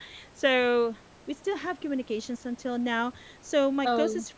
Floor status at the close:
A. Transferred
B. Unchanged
B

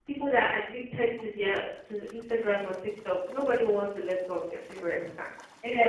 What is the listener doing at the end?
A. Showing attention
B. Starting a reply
B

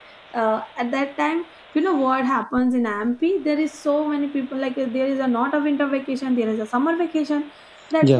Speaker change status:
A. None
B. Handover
A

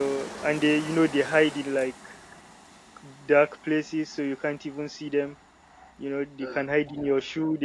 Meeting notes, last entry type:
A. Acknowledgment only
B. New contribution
A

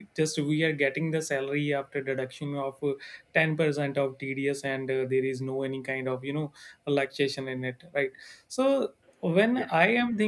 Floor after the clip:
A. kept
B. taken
A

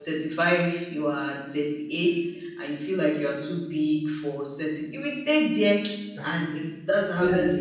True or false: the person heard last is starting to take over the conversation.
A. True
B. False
A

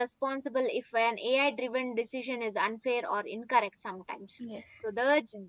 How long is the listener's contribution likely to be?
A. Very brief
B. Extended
A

